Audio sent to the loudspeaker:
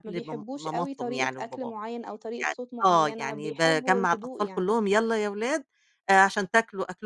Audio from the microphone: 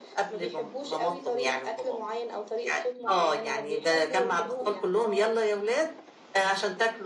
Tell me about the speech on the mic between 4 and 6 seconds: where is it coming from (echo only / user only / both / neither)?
both